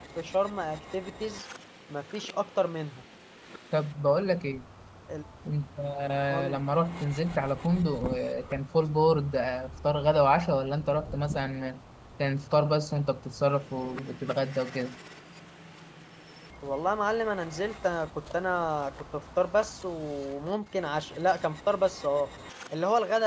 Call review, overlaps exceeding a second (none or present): none